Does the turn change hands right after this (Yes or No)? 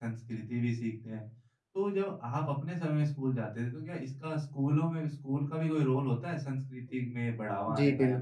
Yes